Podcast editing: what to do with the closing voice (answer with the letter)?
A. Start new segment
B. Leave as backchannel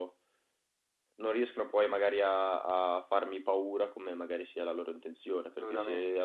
B